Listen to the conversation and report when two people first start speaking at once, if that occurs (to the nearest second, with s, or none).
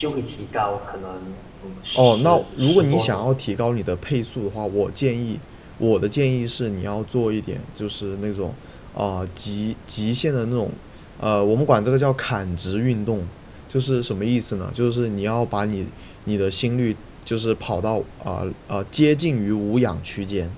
2 s